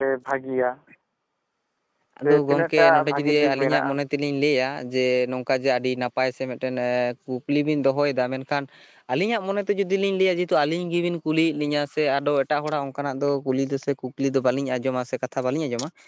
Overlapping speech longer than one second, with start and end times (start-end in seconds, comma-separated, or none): 2.2-3.9